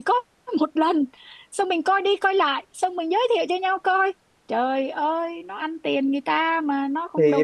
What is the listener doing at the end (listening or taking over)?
taking over